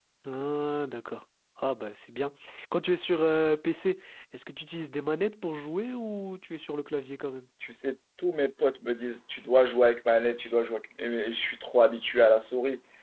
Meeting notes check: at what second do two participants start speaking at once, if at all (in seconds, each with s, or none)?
none